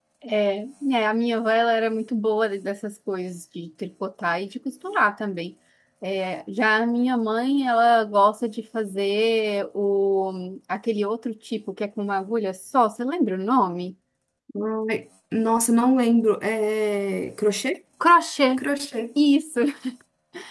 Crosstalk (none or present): none